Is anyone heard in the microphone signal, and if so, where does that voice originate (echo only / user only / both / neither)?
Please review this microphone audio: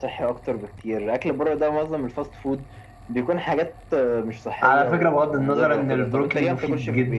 both